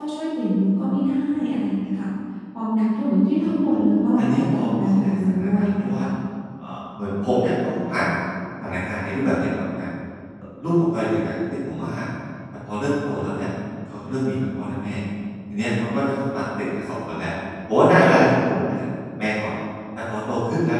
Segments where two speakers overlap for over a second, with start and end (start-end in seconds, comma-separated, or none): 4.2-5.9